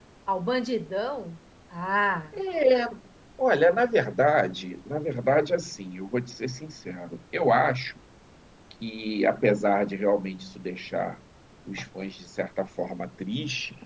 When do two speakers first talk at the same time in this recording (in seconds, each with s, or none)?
none